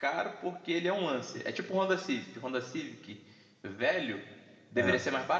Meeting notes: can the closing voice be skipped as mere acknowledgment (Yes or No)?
Yes